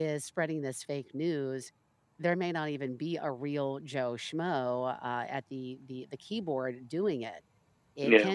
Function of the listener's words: listening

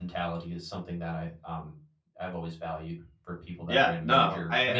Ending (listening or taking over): taking over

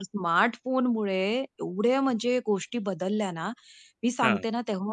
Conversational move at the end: listening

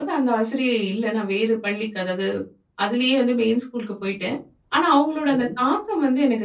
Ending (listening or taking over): listening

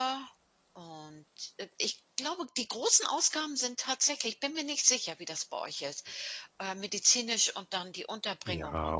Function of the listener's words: taking over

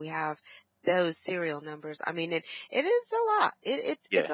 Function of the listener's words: listening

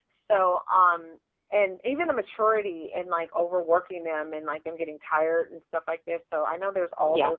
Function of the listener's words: listening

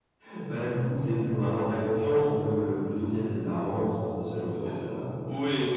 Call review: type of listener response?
taking over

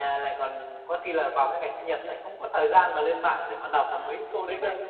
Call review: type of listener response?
taking over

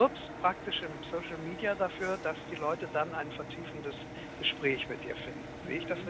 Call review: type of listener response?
taking over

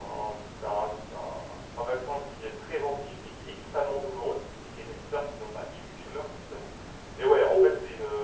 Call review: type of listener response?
listening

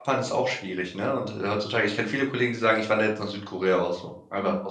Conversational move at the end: taking over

